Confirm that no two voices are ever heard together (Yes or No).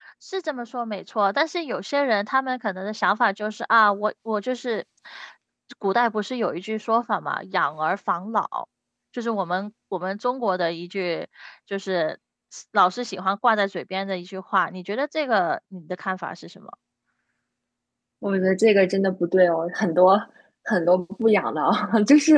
Yes